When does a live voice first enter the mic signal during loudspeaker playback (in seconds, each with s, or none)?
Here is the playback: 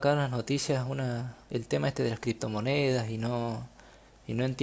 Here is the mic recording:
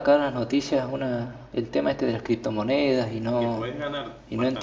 3.4 s